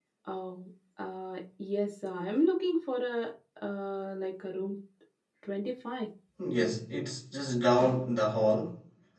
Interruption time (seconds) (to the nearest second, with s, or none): none